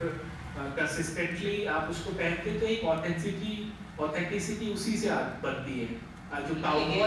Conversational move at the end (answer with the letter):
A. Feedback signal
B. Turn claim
B